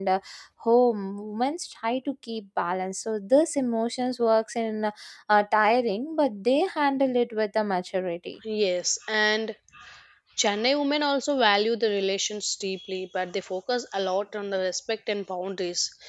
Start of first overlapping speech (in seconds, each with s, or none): none